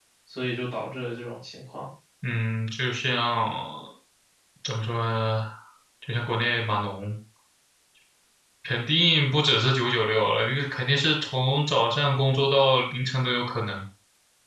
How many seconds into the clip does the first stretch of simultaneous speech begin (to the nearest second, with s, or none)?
none